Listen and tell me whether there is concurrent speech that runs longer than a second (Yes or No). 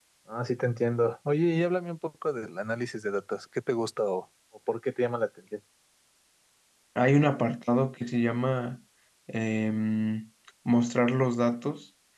No